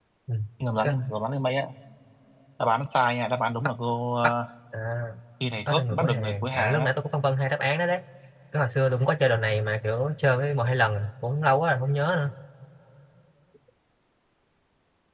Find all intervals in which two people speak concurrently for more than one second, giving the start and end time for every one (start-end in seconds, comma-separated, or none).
5.7-6.9